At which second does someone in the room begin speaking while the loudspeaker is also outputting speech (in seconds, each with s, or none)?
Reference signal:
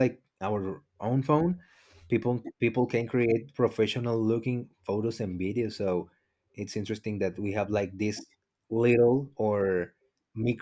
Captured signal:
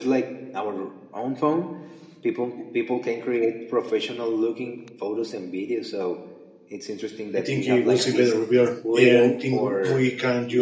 7.3 s